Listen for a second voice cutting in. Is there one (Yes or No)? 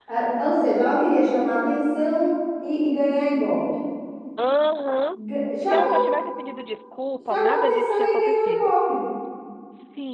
Yes